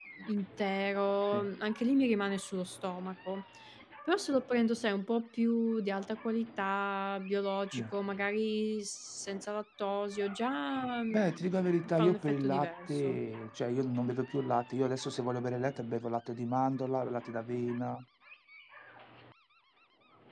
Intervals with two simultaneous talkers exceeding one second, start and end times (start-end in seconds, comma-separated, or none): 11.1-13.2